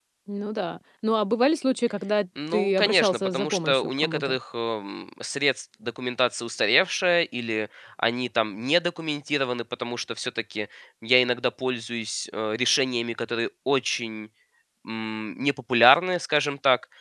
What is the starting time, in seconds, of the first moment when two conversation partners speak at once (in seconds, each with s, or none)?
2.4 s